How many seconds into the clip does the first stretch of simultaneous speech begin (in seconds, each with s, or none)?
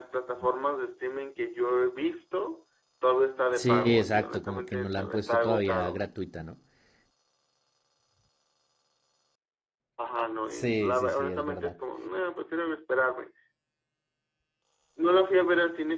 3.5 s